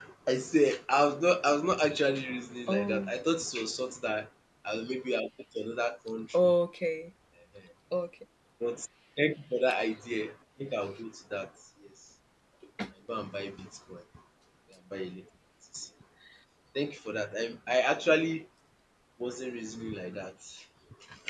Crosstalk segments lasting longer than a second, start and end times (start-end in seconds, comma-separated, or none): none